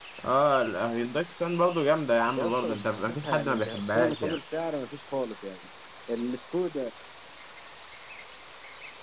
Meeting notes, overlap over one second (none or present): present